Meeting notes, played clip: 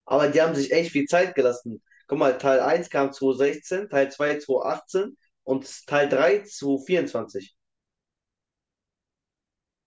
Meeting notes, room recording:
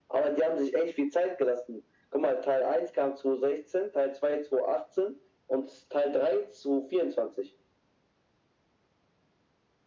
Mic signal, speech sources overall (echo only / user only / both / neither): echo only